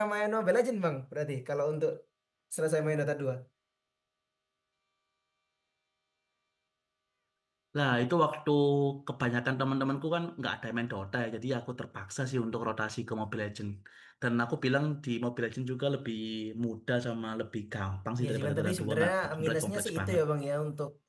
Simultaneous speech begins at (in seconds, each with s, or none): 18.2 s